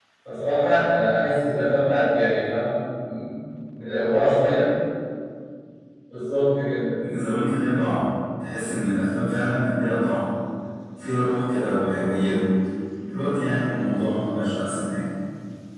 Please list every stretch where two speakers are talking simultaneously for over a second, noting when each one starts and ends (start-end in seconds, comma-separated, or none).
none